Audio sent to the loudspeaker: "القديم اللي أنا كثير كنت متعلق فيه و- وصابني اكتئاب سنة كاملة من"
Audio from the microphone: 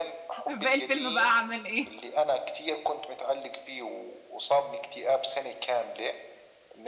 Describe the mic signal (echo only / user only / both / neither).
both